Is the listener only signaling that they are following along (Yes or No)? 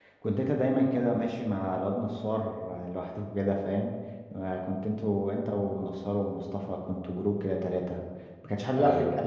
Yes